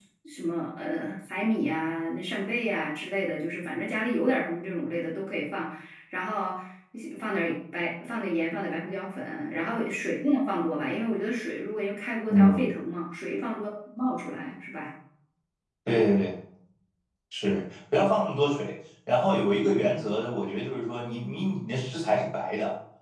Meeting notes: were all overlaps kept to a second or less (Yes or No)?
Yes